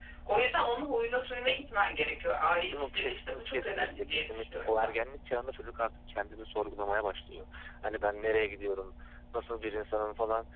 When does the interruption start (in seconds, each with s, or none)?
2.7 s